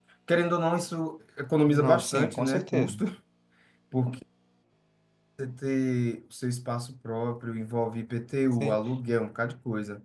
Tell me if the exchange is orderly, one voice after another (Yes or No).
No